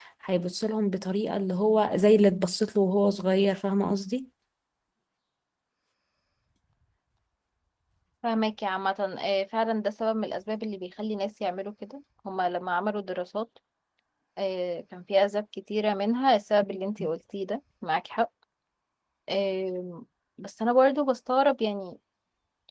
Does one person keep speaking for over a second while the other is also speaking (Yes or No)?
No